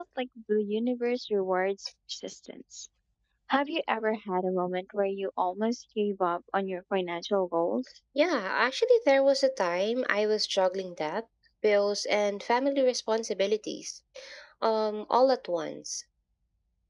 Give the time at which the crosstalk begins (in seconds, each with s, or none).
none